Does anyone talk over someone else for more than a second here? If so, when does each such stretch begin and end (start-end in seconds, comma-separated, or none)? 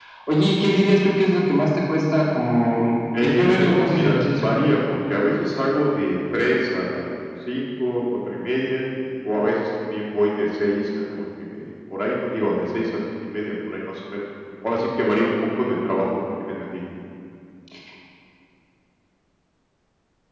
3.2-4.5